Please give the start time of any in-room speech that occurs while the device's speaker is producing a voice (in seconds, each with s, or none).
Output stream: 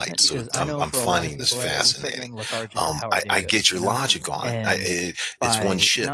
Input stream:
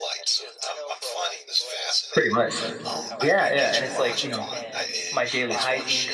2.1 s